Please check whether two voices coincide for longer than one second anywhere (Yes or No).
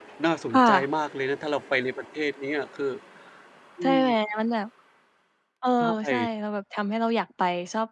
No